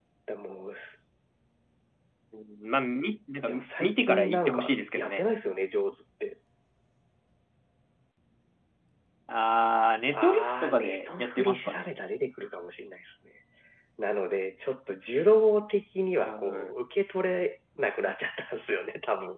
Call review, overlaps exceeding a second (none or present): present